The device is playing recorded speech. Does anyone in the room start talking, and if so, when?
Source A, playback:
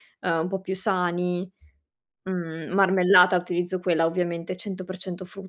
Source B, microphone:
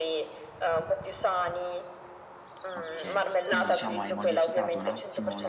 3 s

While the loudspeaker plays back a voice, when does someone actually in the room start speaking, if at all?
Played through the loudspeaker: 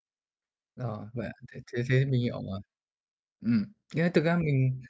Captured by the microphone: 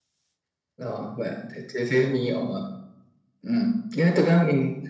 none

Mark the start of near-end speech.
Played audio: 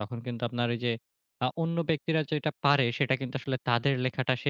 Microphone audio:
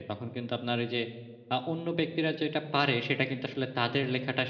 none

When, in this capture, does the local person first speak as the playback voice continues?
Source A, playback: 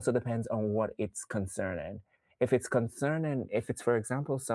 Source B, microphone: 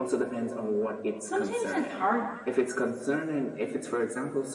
1 s

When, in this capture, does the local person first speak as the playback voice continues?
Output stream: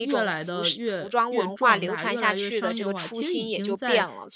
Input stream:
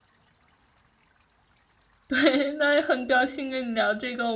2 s

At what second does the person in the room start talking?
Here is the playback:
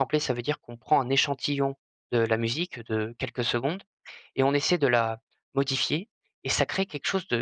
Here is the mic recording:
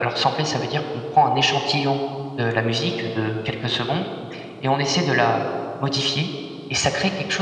none

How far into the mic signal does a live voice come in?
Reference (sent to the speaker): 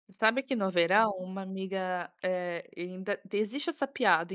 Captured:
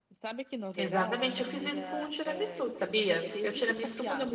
1 s

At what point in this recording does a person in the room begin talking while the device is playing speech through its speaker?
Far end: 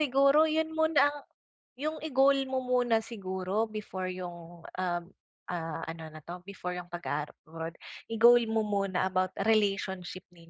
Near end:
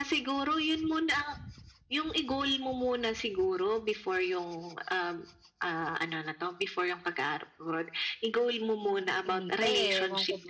9 s

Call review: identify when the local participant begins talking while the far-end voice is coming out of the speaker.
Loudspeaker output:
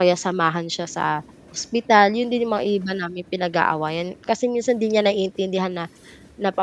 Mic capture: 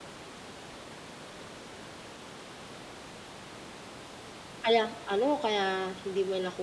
5 s

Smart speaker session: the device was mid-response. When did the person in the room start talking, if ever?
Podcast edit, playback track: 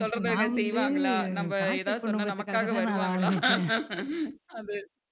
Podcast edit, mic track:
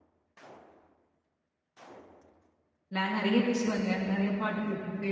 3 s

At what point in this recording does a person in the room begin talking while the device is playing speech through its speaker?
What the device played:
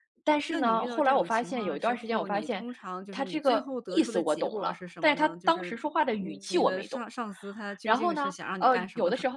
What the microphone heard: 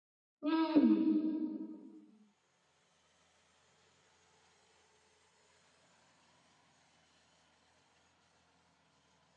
0 s

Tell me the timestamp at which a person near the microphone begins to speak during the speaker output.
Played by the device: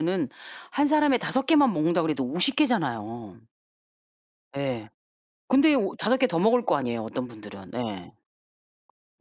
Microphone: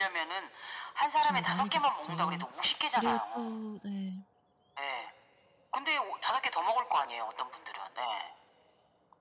1 s

